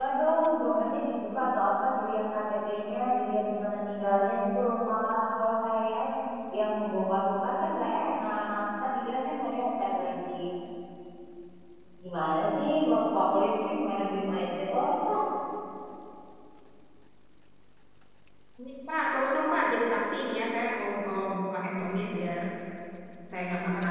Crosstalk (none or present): none